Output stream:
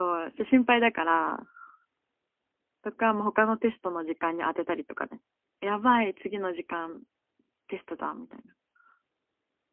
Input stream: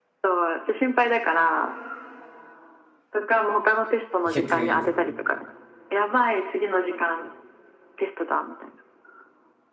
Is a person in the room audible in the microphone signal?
Yes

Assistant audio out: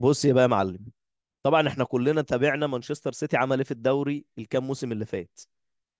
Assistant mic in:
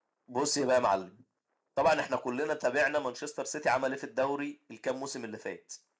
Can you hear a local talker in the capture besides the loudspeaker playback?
No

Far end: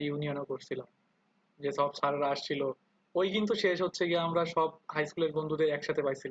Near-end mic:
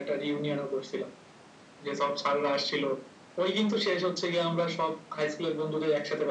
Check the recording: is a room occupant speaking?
No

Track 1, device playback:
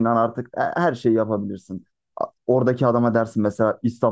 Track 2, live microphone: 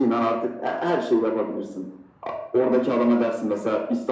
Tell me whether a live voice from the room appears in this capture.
No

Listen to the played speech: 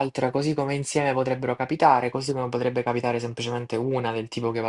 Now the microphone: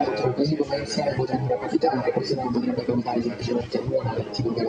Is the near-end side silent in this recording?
No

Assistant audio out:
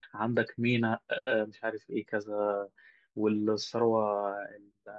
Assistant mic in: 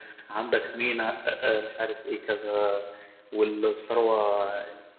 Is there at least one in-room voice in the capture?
No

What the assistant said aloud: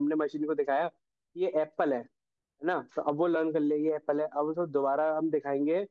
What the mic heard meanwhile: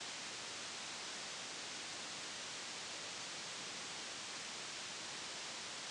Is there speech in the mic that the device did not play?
No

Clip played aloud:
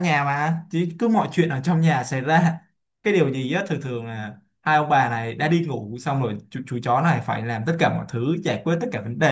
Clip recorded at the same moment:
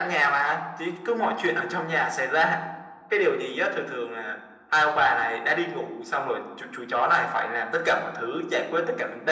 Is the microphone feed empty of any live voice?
Yes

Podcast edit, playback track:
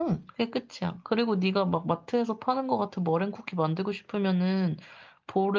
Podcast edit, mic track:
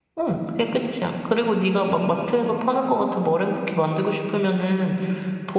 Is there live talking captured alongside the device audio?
No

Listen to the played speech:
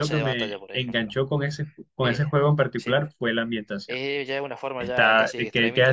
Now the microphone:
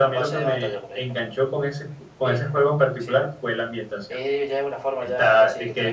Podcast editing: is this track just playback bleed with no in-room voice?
Yes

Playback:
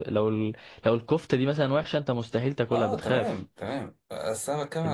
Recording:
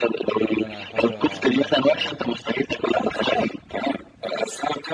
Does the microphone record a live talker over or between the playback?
Yes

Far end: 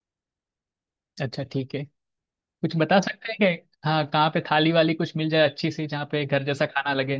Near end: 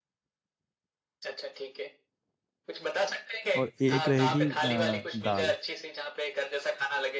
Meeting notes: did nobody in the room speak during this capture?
No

